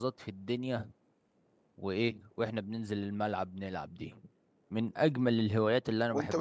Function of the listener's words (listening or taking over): taking over